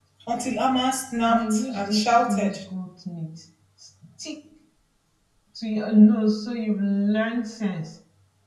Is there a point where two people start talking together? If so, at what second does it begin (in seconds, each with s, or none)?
1.3 s